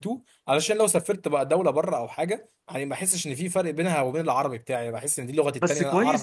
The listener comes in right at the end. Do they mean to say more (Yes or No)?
Yes